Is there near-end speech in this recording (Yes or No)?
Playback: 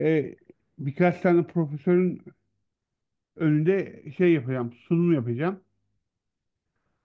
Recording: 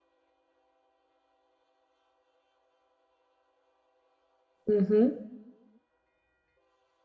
Yes